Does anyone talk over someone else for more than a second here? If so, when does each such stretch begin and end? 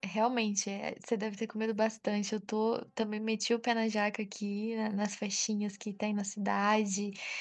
none

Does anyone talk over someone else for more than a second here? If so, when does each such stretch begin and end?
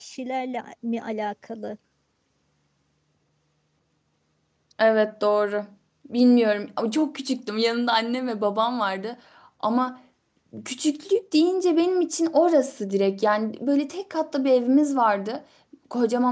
none

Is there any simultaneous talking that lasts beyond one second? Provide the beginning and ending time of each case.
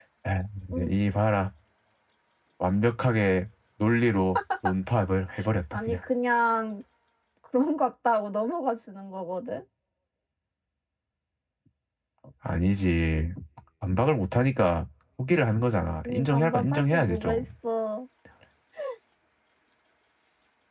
16.1-17.4

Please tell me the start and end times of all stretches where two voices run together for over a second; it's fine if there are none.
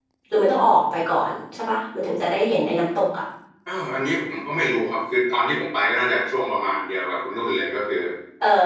none

